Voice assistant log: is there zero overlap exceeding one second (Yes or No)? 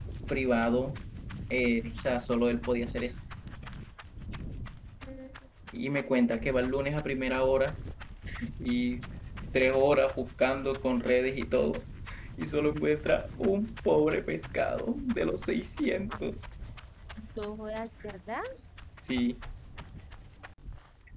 Yes